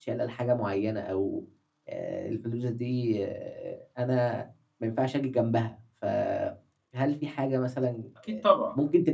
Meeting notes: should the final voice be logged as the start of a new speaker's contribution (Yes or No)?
No